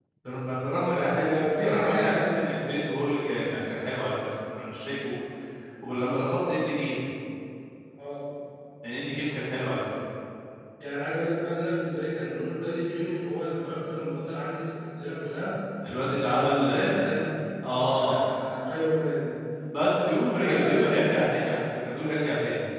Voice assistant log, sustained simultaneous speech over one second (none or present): present